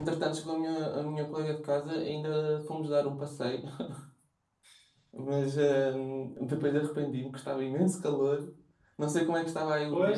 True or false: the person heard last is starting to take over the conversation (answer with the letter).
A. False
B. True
B